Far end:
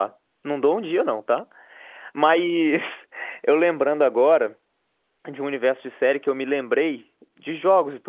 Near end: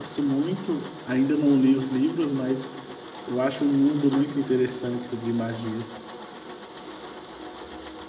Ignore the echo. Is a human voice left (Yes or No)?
Yes